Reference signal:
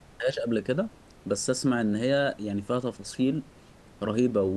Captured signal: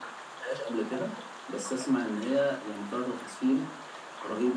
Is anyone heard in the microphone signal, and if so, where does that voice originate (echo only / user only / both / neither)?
echo only